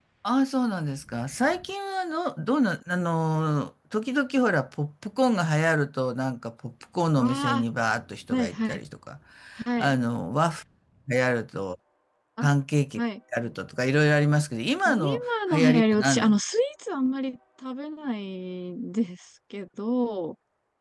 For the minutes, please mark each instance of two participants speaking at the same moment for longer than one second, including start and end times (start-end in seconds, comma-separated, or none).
14.8-16.4